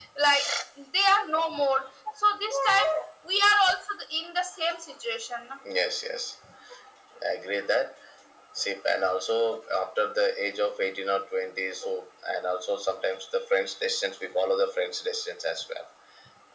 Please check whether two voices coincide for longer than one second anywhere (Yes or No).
No